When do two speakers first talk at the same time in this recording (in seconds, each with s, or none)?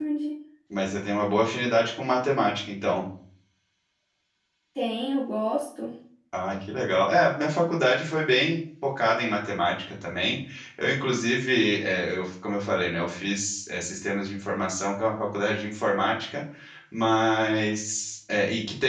none